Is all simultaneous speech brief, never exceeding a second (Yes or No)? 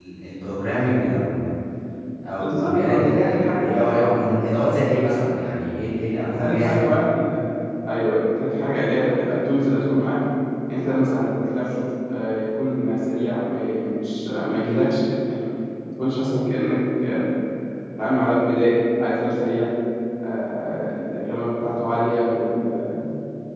No